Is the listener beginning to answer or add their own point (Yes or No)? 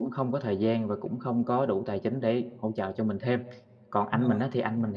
No